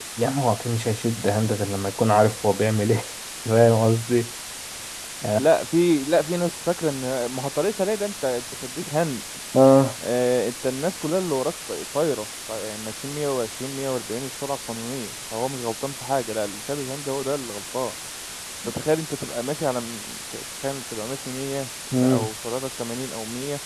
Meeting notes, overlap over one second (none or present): none